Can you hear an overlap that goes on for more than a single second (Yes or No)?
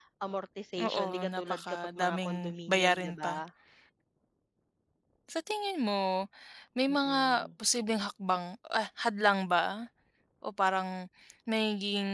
Yes